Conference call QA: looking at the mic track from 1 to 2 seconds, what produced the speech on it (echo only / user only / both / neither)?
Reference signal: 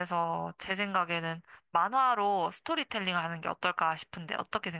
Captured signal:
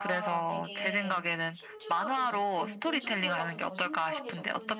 both